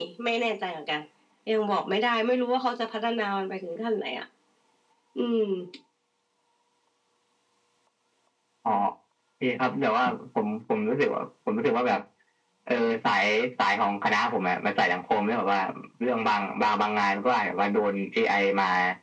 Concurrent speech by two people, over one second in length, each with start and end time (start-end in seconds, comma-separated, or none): none